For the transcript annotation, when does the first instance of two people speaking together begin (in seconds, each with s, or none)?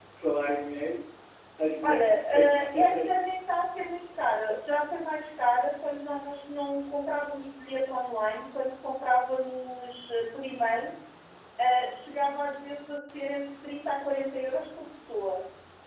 1.8 s